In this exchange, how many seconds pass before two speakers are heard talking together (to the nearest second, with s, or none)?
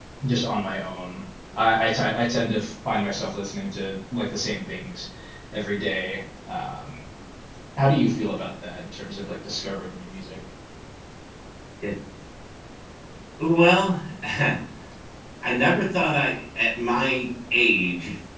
none